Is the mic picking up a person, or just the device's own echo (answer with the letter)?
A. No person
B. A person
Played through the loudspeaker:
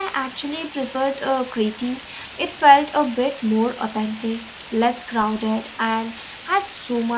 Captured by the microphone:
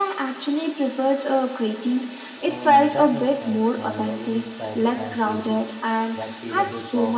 B